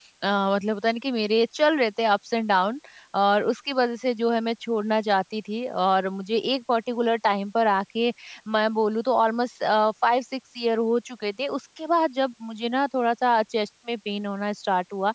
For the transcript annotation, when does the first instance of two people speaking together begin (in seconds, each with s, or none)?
none